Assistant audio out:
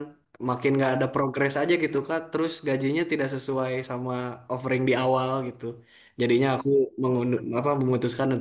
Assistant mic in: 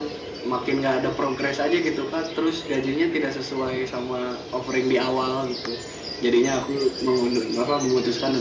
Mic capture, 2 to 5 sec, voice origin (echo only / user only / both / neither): echo only